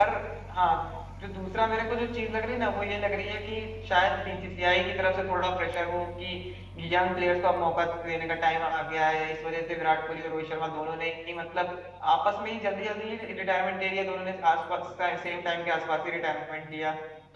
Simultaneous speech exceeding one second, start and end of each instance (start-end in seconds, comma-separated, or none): none